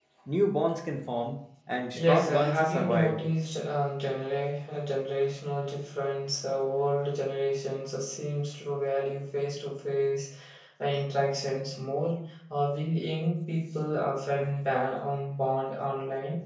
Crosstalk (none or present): present